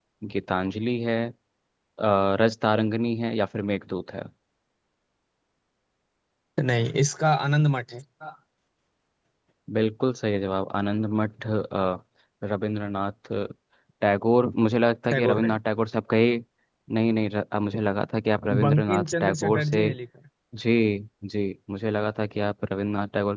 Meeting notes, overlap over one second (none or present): present